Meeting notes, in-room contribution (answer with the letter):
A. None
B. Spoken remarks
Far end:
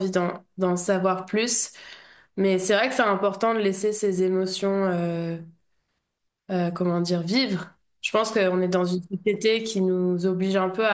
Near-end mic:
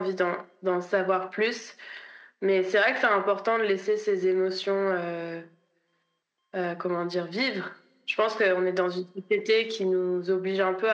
A